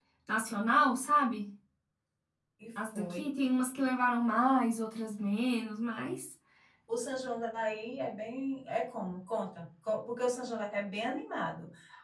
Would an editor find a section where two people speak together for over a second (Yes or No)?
No